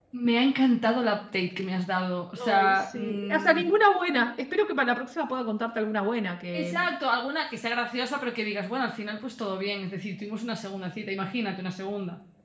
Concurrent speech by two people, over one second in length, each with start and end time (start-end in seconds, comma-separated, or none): 2.4-3.6